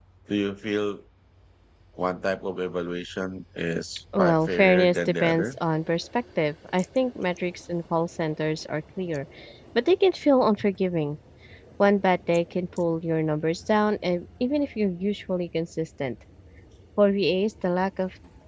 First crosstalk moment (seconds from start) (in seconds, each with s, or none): 4.1 s